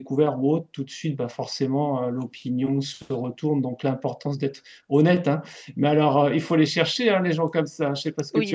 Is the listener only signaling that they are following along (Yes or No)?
No